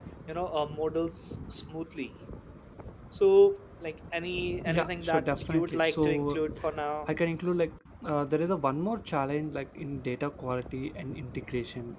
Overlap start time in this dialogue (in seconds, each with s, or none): 4.7 s